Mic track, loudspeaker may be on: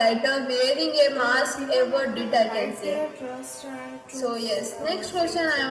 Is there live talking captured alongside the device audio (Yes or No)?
Yes